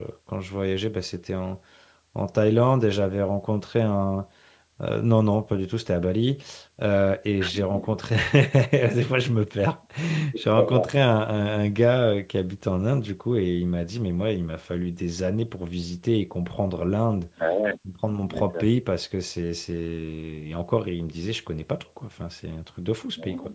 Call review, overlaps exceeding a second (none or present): none